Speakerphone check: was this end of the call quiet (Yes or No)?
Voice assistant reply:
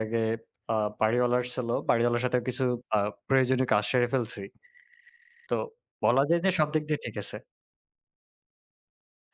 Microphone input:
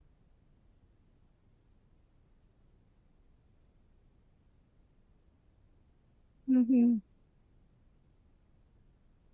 No